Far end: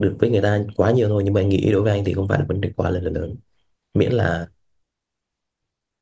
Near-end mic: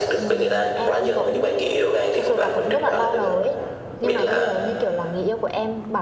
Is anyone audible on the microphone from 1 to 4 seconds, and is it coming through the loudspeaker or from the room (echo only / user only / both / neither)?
both